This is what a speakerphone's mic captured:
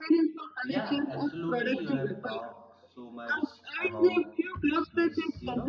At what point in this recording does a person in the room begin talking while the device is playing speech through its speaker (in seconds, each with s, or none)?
0.6 s